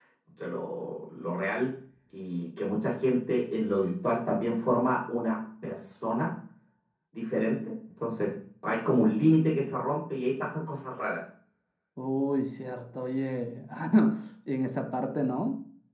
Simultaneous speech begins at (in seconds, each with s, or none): none